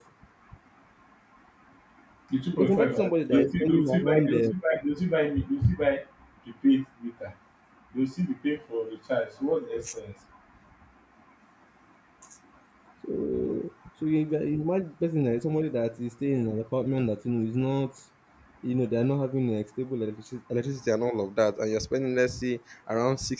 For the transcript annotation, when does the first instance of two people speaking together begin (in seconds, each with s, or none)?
2.5 s